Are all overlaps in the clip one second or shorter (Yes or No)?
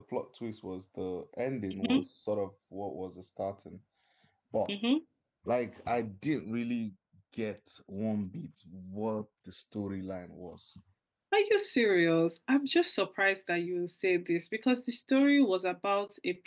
Yes